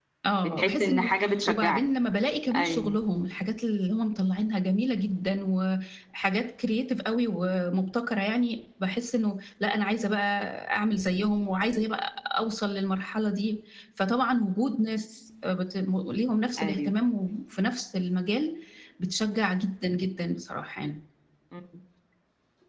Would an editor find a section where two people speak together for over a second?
Yes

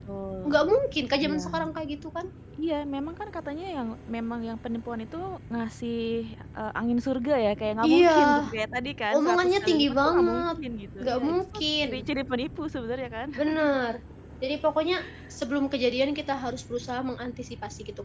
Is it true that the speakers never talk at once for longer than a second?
No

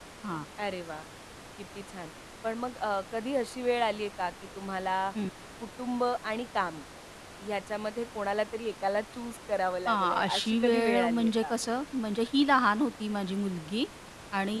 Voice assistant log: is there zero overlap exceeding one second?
No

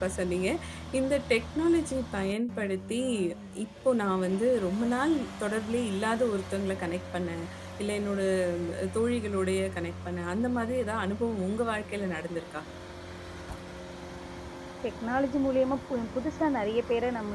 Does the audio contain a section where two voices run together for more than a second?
No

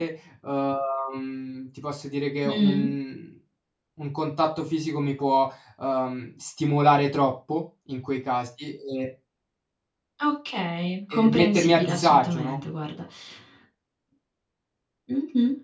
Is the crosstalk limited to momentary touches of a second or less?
No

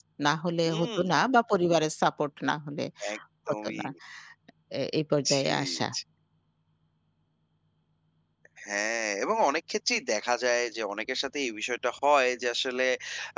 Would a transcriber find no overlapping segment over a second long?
Yes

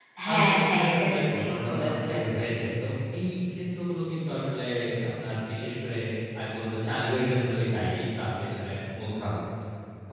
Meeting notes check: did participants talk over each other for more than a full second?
Yes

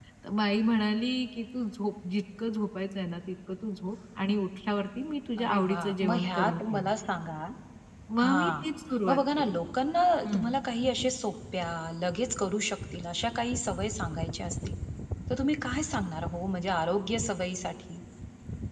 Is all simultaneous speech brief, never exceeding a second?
No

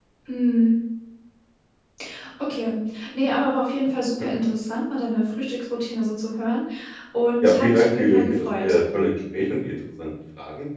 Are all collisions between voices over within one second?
No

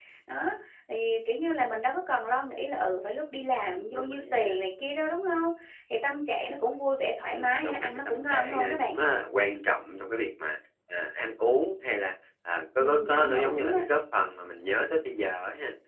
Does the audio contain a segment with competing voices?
Yes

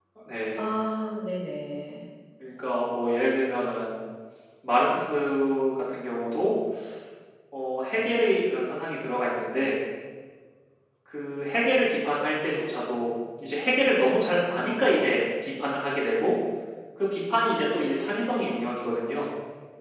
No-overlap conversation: Yes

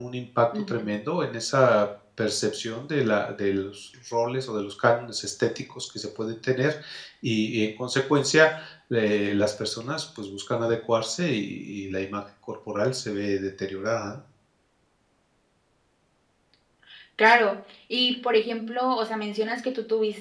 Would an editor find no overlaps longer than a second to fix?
Yes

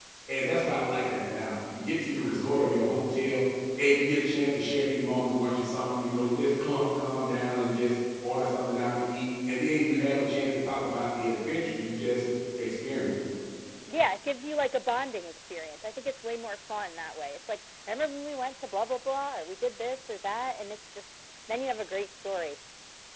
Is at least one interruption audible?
No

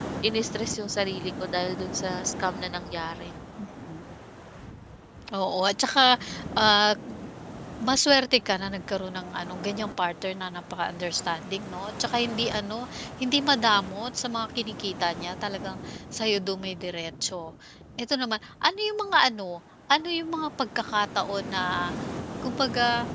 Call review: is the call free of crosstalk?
Yes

